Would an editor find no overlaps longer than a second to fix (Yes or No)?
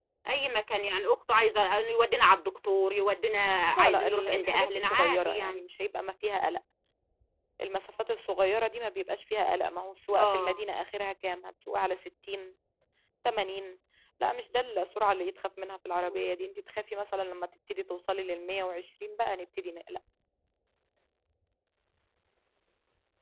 No